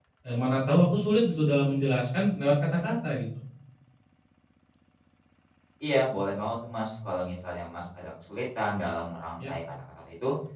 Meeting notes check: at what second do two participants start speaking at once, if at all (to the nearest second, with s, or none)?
none